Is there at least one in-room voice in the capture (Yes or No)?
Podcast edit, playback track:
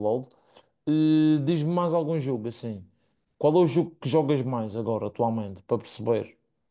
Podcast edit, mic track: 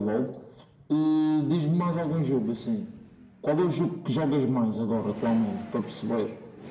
No